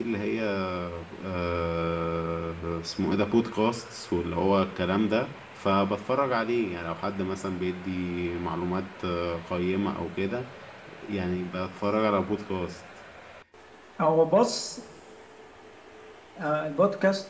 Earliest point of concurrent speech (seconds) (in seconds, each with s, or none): none